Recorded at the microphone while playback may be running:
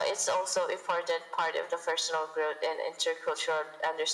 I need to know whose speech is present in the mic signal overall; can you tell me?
echo only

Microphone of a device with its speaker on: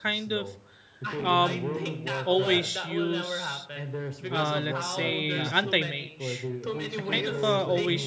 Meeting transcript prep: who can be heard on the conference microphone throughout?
both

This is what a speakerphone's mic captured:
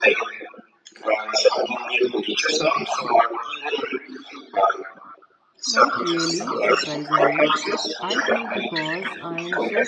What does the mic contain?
both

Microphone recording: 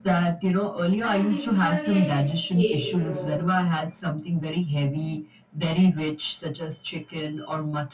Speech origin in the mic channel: both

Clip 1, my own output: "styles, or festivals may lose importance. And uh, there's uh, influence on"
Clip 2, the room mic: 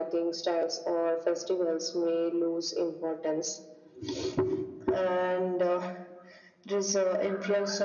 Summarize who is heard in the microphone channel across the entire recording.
echo only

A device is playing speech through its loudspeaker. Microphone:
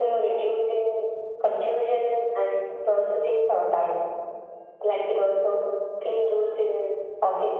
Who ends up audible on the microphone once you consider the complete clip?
echo only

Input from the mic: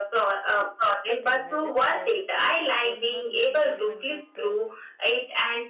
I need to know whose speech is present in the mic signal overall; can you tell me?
both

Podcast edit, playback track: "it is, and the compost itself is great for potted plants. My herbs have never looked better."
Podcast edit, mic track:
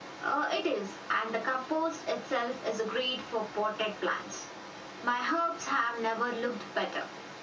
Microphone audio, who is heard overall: echo only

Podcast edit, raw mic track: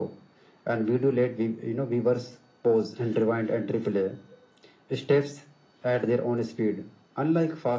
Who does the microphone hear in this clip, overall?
echo only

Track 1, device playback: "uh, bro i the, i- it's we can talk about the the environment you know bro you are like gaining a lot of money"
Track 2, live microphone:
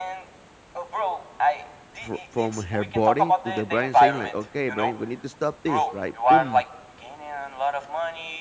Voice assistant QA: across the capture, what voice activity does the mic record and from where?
both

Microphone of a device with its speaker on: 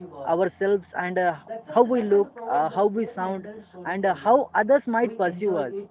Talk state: both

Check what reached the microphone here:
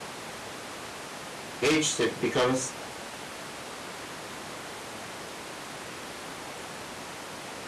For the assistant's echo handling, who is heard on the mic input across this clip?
user only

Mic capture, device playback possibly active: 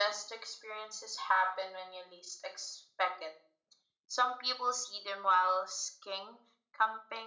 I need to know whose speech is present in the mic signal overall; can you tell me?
echo only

